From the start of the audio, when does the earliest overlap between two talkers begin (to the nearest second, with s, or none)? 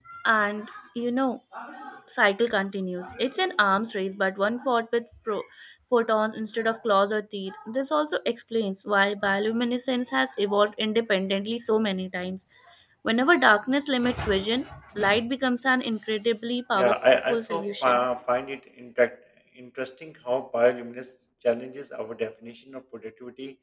17 s